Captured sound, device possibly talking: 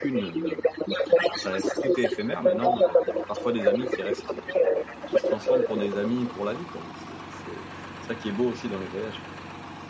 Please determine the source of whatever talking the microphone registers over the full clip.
both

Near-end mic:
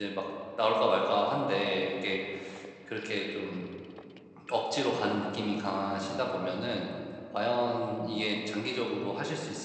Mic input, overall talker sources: user only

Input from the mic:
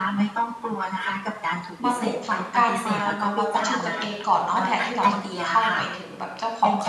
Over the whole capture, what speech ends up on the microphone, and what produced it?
both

